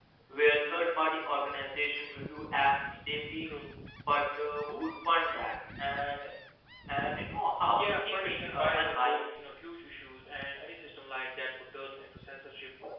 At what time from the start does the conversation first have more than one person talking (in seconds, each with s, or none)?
7.7 s